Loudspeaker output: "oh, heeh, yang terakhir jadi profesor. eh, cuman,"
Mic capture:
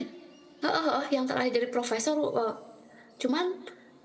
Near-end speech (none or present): none